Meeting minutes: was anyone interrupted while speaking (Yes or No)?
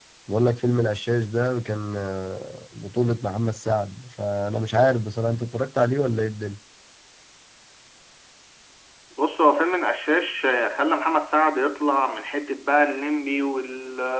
No